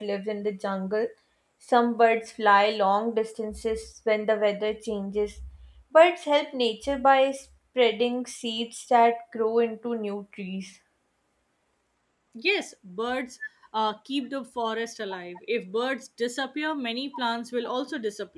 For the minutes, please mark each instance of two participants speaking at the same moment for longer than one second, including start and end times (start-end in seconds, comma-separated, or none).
none